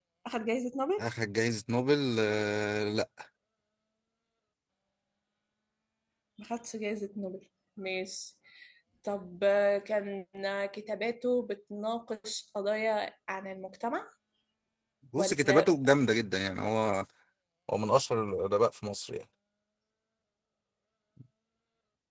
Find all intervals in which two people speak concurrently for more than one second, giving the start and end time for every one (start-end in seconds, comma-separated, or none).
none